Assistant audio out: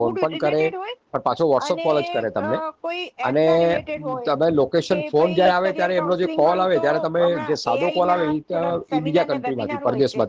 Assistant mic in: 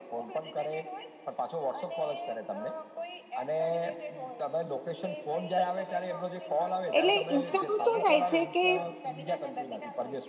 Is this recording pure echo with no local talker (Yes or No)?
No